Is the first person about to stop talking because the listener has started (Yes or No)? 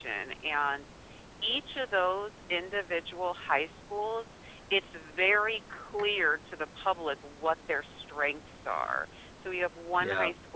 No